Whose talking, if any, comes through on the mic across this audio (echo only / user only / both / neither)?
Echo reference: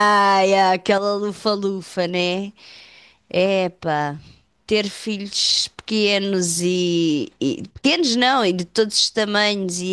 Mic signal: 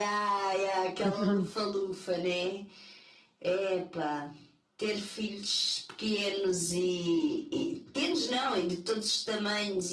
both